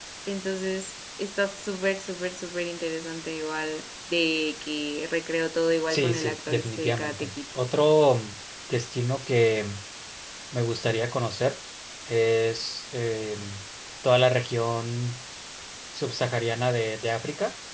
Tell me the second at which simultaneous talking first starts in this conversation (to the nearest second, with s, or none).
6 s